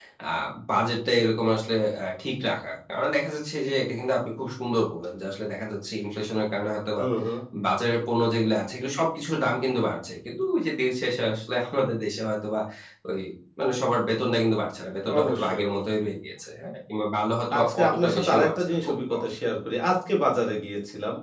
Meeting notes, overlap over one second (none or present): present